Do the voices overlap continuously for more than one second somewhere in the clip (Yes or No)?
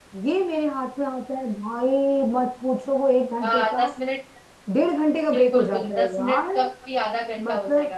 Yes